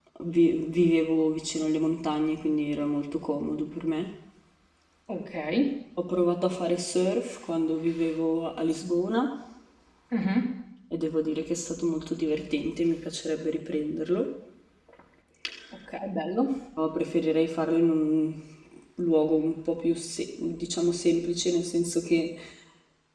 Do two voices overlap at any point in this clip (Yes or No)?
No